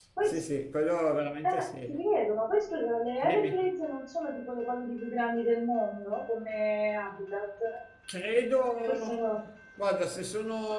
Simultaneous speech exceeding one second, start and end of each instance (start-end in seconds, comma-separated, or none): none